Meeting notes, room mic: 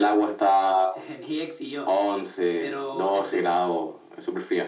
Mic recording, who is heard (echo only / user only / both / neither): echo only